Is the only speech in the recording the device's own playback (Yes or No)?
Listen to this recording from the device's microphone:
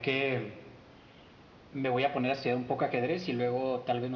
Yes